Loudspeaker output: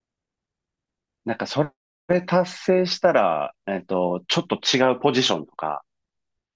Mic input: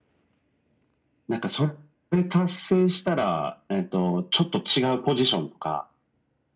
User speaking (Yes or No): No